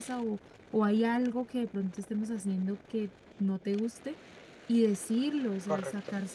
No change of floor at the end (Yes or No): Yes